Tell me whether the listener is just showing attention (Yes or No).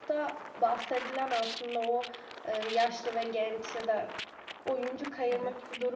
Yes